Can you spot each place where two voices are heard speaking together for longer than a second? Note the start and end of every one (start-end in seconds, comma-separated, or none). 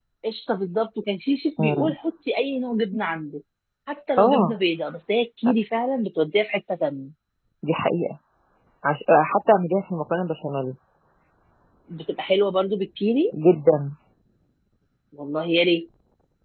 none